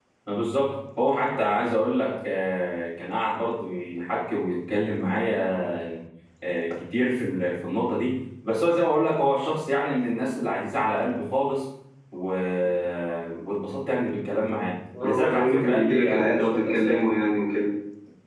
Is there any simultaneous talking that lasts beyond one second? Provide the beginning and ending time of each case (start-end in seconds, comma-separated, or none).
15.0-17.0